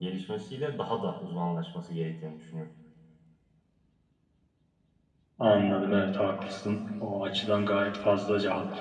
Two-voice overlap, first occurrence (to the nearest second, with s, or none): none